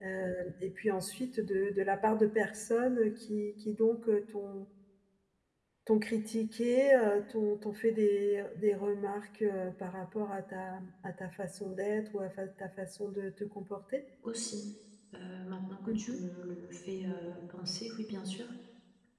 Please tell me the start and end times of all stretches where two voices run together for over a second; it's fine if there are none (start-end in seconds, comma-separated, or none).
none